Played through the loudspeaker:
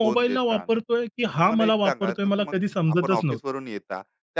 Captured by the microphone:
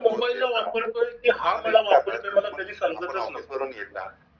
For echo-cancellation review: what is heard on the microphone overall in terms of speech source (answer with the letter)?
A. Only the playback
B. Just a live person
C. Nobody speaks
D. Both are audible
A